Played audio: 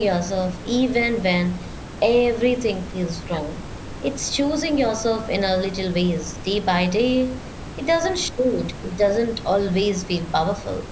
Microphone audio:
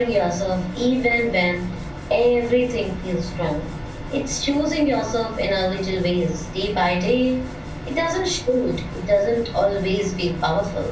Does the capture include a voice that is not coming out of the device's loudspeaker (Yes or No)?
No